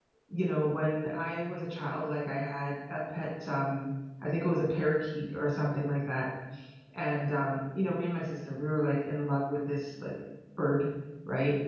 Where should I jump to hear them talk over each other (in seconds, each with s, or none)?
none